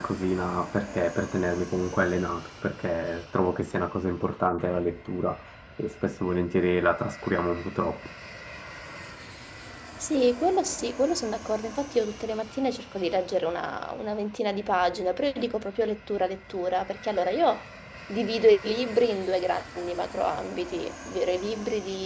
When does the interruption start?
none

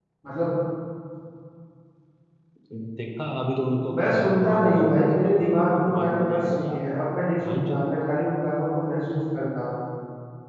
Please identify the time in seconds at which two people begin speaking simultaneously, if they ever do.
4 s

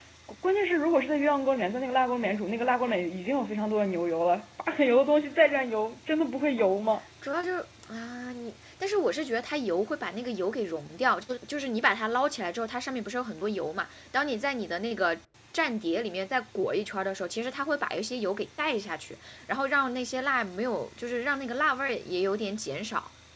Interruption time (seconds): none

